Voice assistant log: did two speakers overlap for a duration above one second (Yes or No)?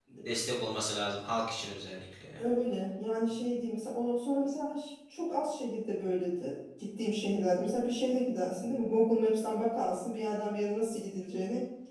No